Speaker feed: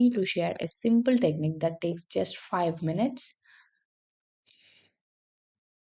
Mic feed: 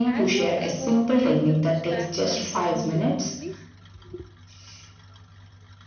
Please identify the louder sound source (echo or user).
echo